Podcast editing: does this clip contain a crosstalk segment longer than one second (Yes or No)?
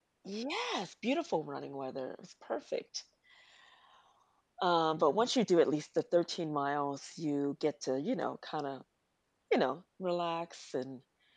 No